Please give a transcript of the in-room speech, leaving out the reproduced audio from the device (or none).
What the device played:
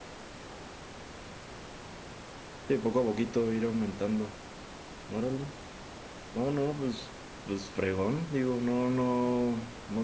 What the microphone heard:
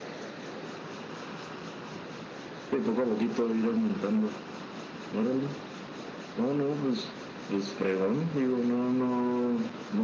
none